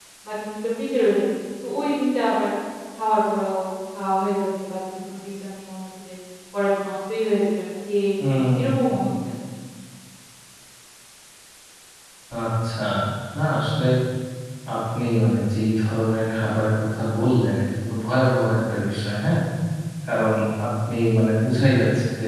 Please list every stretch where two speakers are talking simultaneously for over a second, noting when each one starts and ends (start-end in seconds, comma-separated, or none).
none